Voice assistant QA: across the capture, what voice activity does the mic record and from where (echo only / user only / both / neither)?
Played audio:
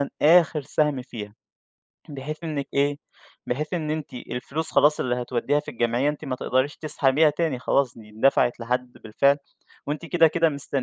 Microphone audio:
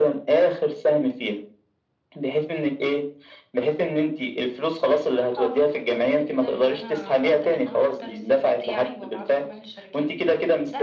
both